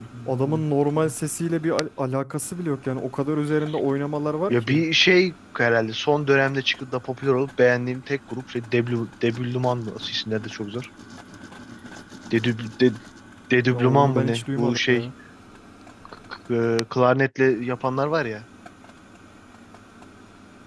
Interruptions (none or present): present